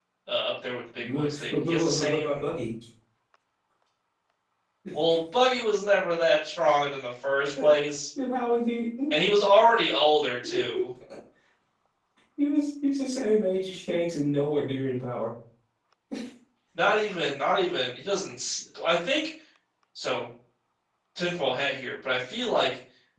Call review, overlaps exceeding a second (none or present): present